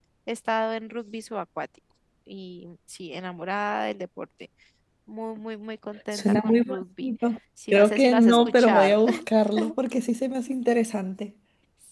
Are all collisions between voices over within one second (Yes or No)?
No